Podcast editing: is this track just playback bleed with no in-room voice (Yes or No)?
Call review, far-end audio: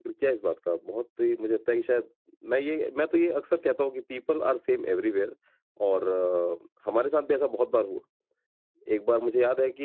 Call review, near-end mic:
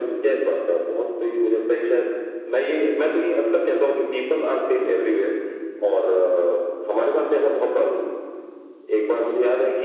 Yes